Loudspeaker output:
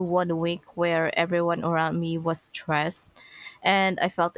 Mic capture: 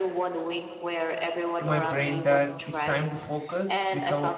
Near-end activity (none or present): present